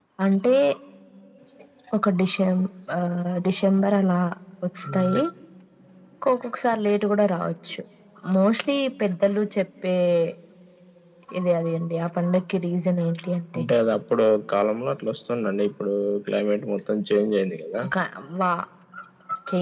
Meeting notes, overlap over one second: none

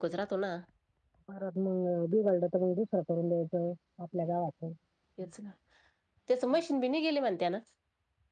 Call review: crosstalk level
none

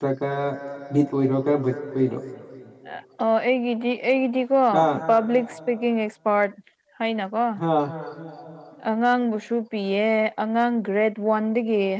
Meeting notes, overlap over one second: none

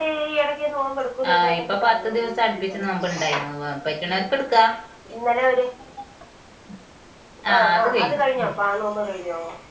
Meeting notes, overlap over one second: present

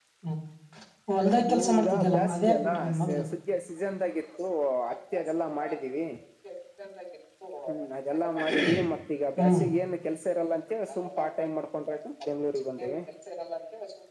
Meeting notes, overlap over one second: present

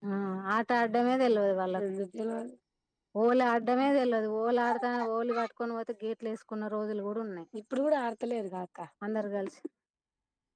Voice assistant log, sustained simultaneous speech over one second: none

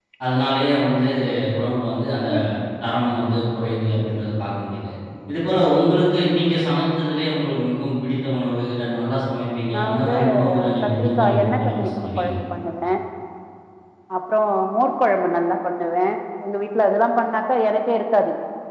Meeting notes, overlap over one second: present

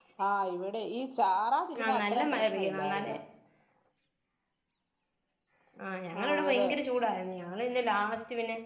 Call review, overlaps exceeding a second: present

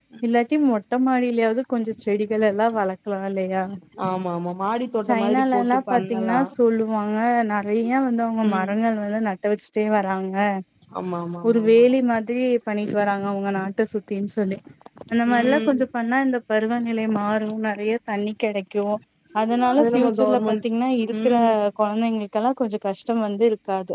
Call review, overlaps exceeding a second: present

